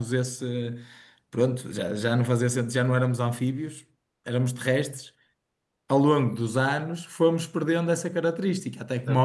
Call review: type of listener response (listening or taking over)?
taking over